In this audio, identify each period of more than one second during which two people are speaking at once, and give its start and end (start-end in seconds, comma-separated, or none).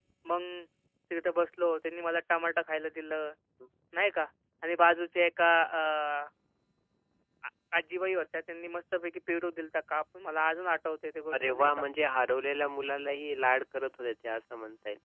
none